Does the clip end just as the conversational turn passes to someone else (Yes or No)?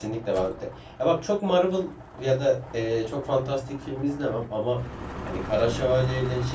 No